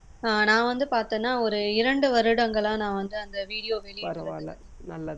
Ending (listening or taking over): taking over